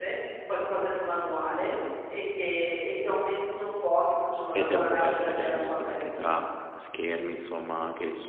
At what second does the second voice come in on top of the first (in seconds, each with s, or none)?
4.5 s